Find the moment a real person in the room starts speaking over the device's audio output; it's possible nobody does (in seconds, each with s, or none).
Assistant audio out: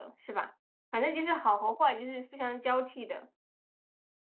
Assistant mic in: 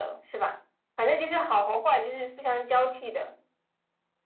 none